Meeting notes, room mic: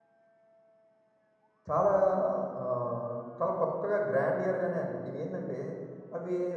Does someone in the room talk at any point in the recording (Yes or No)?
Yes